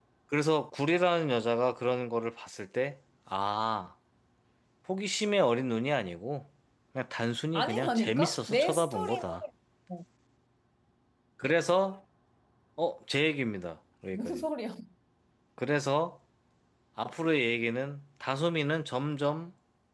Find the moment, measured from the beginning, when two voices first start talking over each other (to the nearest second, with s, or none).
8 s